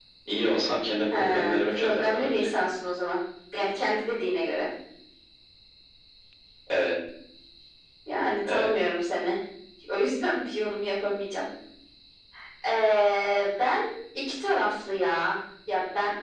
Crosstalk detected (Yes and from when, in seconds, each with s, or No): Yes, from 1.1 s